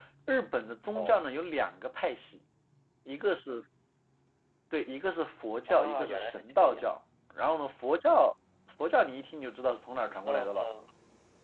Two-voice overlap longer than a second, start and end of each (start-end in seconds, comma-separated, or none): 5.7-6.9